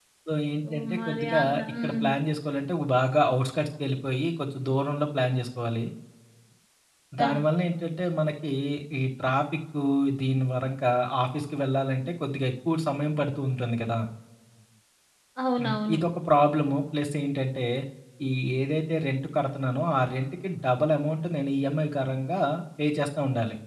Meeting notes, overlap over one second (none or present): present